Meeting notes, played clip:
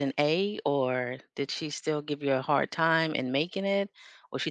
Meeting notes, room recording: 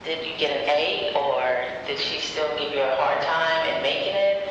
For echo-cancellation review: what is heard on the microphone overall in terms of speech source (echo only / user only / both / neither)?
echo only